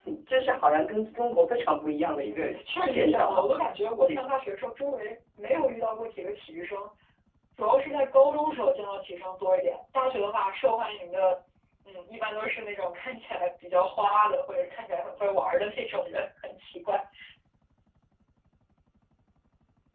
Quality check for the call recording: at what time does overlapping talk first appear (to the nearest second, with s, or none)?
2 s